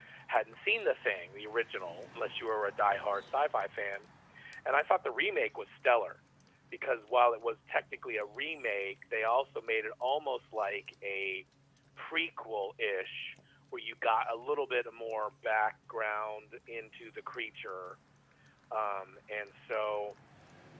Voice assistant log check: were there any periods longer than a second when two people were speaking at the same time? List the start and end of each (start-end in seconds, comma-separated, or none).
none